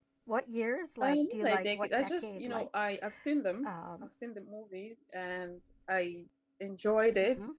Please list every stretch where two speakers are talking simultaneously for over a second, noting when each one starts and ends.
1.0-2.7

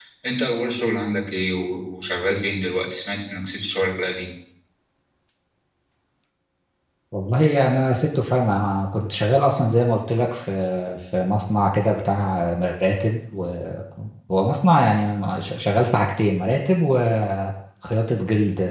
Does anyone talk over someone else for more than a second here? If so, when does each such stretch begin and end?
none

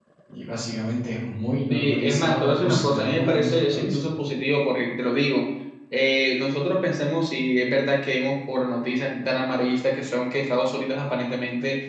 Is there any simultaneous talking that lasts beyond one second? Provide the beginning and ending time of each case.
1.7-4.0

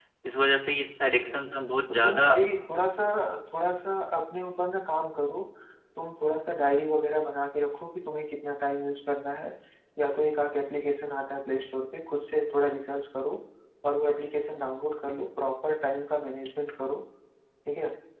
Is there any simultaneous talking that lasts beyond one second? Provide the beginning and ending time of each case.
none

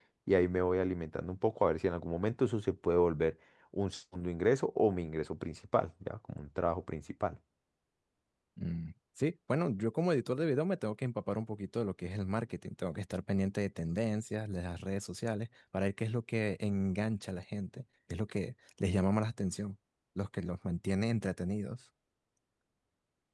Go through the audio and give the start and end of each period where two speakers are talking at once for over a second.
none

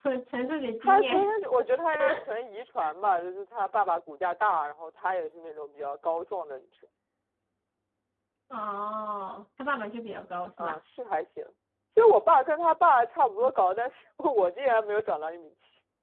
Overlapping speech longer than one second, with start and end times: none

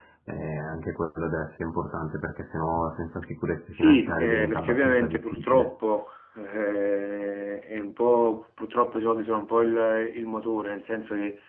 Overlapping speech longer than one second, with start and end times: 3.7-5.7

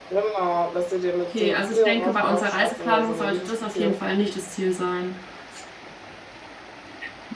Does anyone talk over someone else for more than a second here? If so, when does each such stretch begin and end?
1.3-4.0

